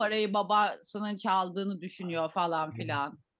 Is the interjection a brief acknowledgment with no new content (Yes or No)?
No